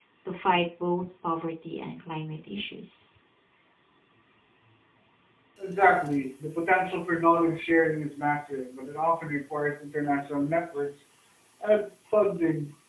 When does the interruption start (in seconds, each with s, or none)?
none